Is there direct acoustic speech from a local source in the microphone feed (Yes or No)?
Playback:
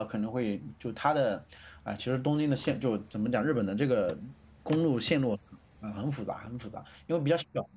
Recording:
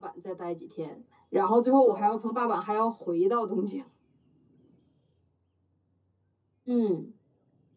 Yes